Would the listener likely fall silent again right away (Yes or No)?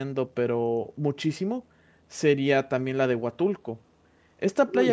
No